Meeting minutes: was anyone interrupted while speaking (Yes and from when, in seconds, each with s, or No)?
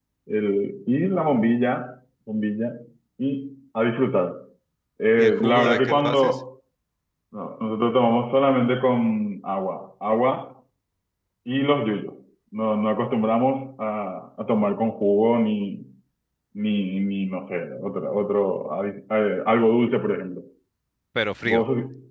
Yes, from 5.2 s